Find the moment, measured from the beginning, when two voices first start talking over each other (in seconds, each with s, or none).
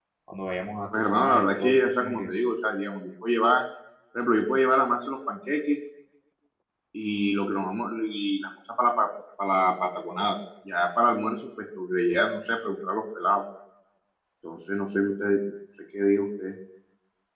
0.9 s